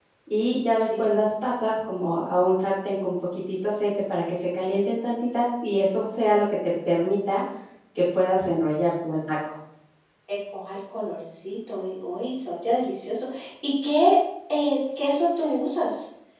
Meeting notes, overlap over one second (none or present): none